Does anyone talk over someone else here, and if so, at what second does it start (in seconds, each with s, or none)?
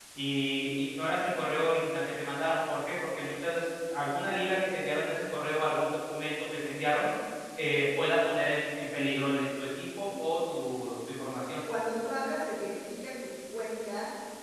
none